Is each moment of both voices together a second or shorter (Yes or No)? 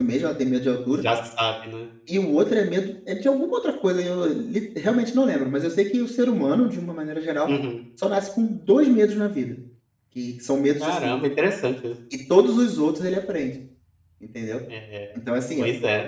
Yes